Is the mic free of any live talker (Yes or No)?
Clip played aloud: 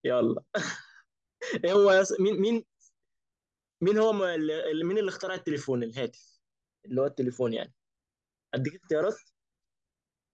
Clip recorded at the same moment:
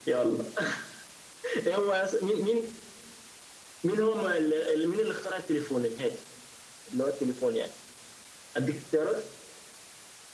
Yes